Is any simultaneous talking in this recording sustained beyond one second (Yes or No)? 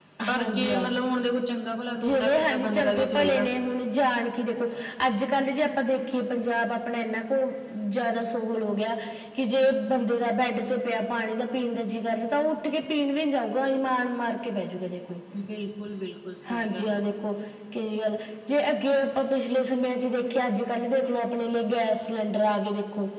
Yes